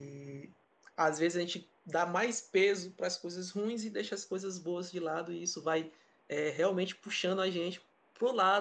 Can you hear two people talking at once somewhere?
No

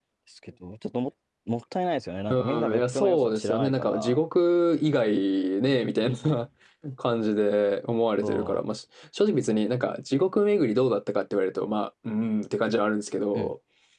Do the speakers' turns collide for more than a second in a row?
Yes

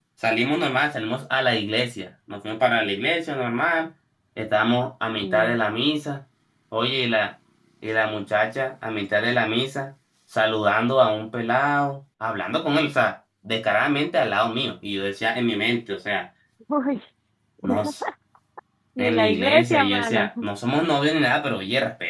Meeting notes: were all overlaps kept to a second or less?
No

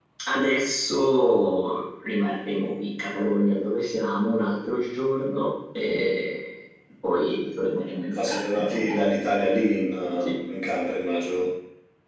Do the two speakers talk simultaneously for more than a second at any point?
Yes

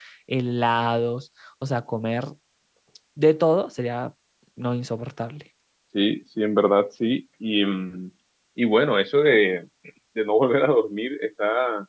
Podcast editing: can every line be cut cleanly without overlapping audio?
Yes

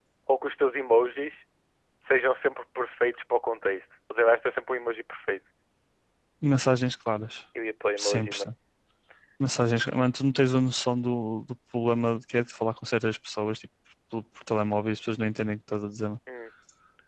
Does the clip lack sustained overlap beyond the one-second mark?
Yes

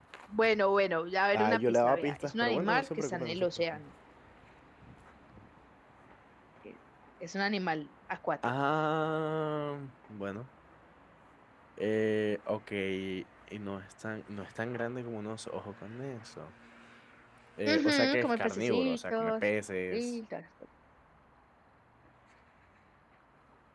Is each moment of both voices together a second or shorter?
No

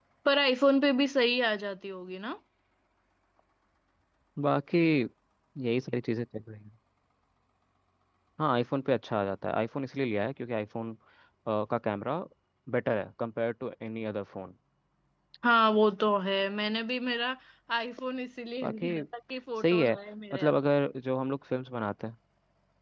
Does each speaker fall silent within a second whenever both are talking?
Yes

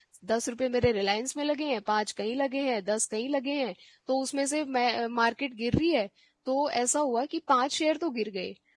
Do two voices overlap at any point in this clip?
No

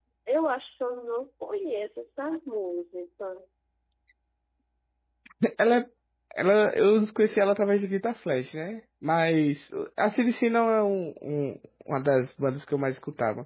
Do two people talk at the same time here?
No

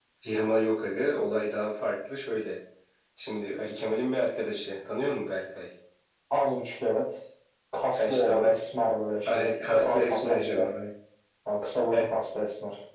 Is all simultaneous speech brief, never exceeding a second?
No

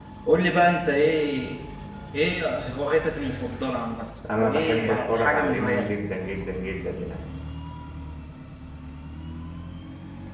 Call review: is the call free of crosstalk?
No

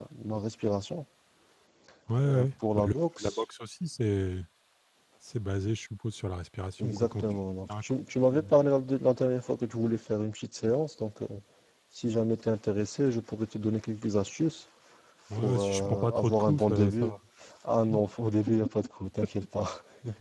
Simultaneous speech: Yes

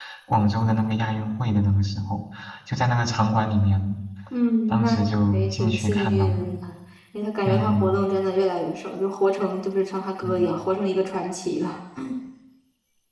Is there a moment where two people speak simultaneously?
Yes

